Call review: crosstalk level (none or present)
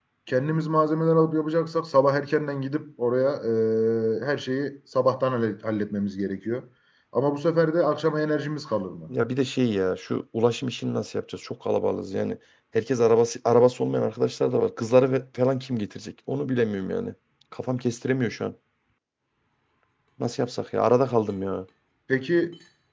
none